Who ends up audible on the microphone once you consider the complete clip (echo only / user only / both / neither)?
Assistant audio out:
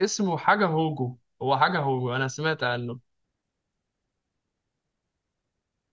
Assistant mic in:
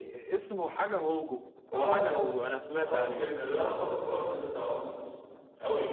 both